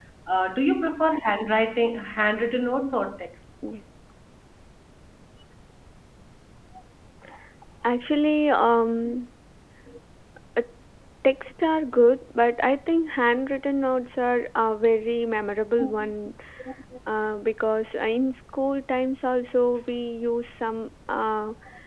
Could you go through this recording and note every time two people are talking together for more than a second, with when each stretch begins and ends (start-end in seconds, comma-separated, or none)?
none